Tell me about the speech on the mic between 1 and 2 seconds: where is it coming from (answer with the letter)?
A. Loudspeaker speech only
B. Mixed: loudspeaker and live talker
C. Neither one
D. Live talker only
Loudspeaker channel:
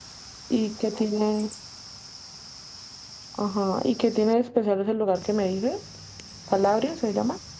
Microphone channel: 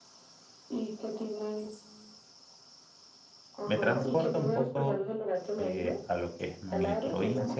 A